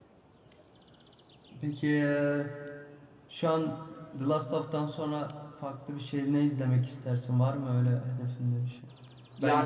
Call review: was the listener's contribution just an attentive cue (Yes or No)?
Yes